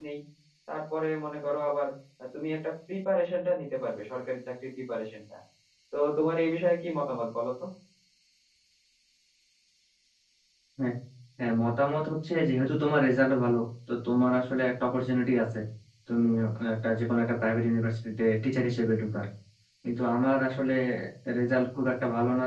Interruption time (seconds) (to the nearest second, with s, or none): none